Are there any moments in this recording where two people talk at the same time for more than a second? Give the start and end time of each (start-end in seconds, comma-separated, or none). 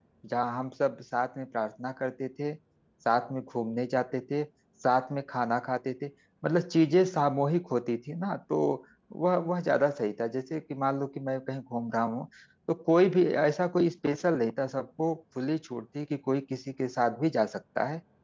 none